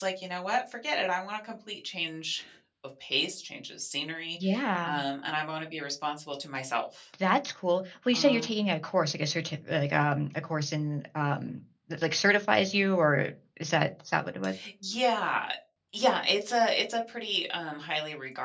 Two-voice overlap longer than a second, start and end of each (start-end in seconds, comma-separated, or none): none